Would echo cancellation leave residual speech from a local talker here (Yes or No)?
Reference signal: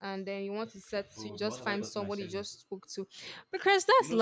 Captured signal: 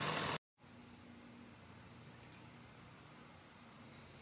No